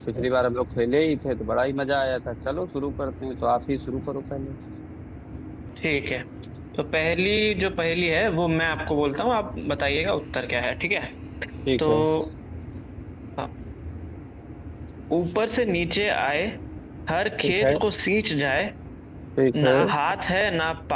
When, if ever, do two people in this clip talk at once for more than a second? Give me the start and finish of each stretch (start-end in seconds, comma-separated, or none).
none